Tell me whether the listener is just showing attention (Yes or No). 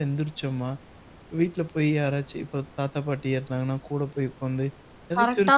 Yes